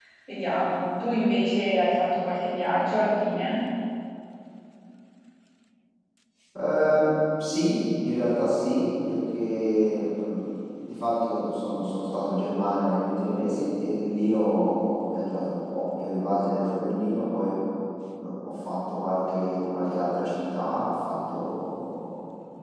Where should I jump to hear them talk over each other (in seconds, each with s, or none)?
none